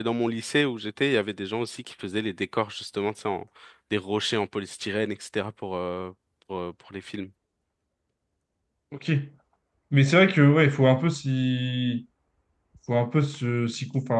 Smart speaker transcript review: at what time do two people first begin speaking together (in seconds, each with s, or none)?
none